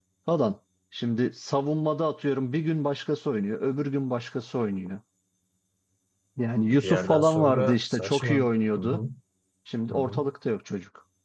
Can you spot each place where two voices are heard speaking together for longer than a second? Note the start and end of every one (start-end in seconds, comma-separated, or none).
6.7-9.0